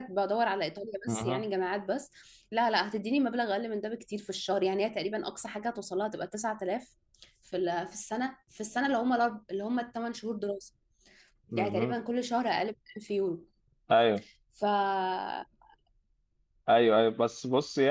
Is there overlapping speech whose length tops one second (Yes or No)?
No